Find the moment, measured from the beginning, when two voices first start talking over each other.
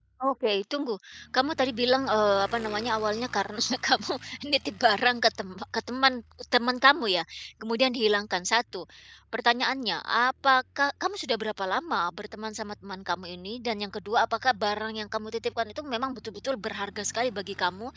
none

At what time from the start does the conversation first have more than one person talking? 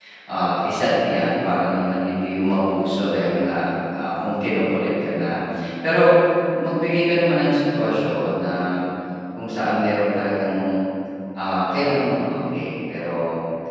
none

